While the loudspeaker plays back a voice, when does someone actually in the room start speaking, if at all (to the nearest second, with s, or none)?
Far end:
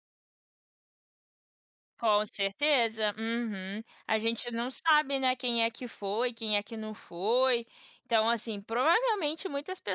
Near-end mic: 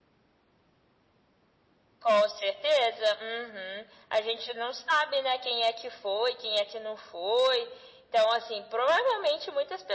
none